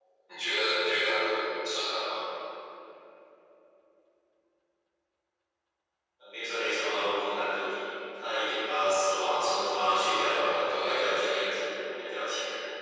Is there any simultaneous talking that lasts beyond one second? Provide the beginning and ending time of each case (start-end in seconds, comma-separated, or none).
9.9-11.5